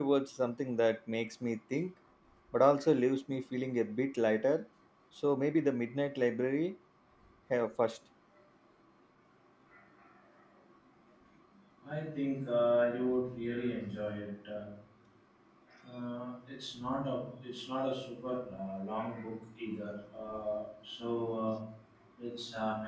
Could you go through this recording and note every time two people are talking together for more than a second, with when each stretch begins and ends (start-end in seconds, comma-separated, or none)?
none